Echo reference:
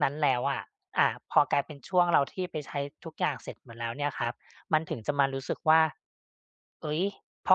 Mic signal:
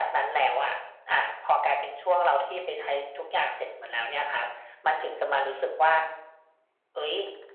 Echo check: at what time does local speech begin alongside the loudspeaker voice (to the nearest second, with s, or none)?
none